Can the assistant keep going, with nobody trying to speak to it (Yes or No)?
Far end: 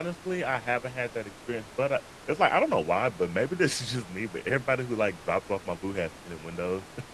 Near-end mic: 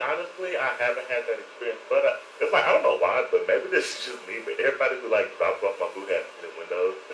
Yes